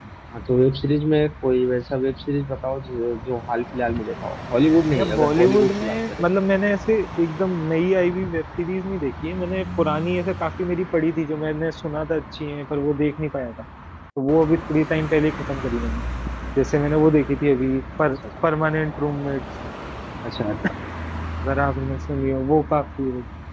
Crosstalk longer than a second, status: present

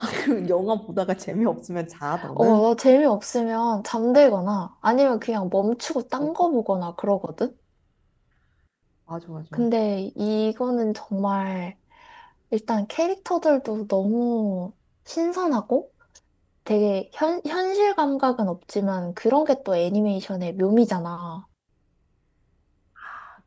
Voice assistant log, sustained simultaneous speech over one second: none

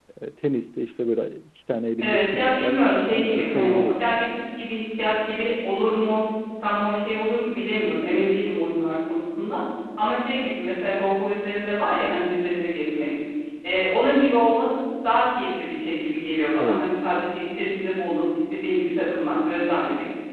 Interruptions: present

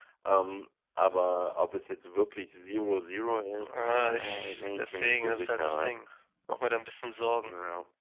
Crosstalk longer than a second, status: present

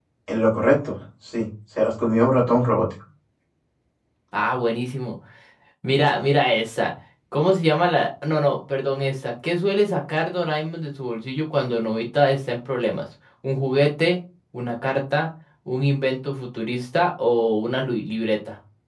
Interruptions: none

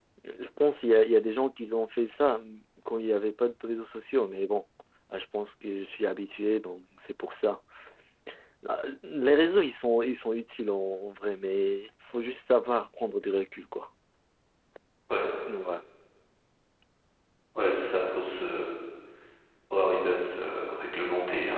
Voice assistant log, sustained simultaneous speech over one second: none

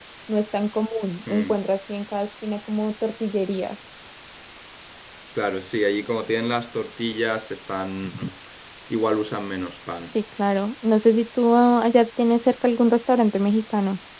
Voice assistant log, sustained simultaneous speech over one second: none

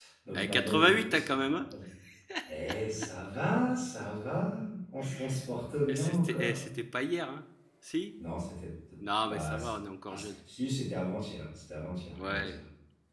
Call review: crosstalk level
present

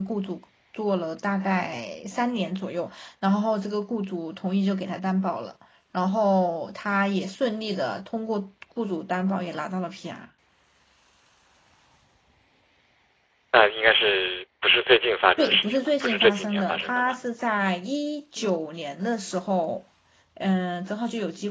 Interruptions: present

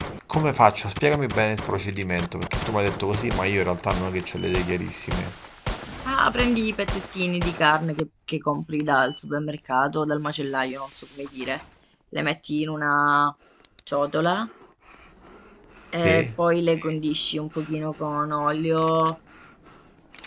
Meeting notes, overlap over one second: none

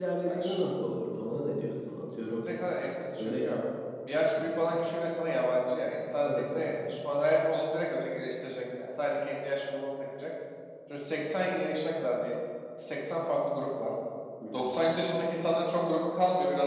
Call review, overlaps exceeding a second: none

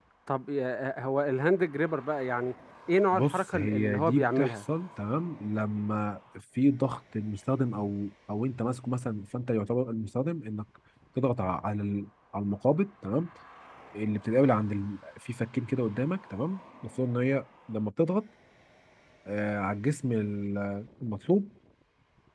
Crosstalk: present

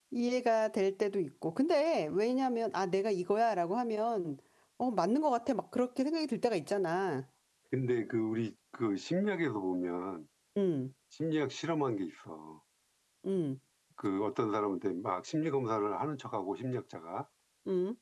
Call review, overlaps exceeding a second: none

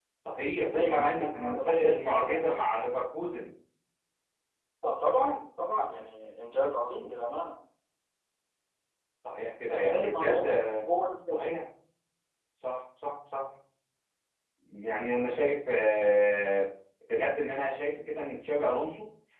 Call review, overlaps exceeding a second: present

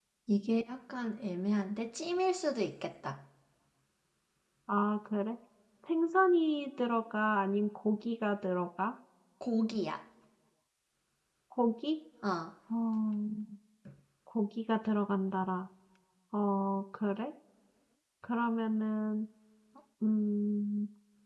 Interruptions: none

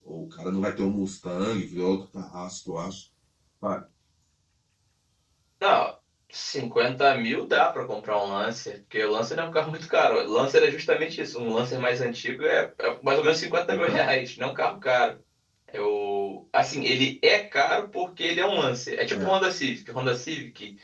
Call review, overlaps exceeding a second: none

